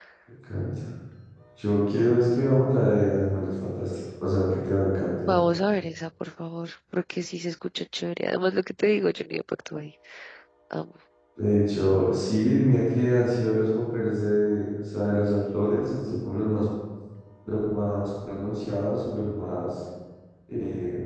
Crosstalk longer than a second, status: none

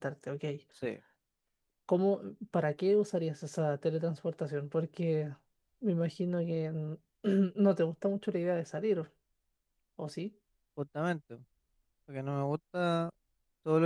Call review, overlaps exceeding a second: none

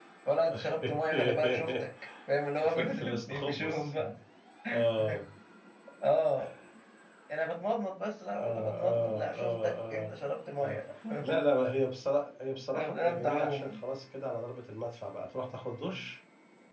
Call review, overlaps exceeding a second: present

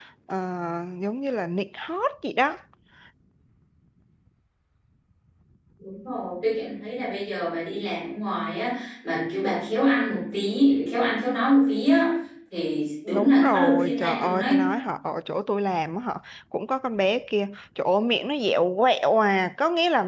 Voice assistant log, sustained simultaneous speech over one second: present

